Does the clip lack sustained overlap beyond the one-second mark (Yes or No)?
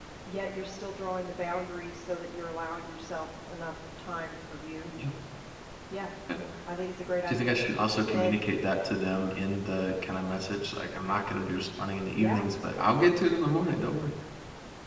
Yes